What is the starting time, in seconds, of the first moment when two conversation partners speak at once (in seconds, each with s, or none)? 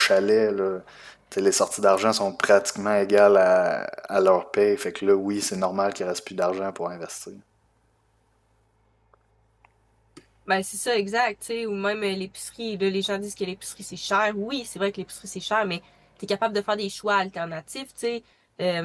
none